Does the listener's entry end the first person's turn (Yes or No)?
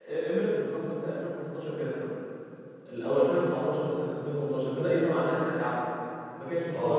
Yes